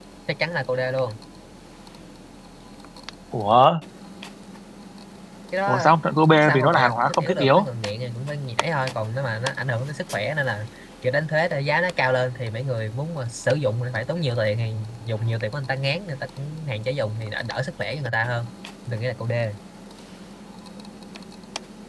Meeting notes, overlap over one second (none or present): present